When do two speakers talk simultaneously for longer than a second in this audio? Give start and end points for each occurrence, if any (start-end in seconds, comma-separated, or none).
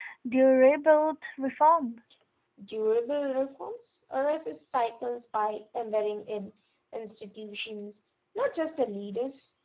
none